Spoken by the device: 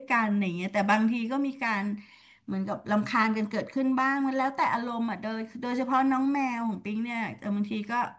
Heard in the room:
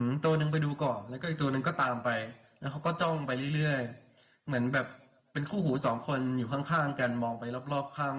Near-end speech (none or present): present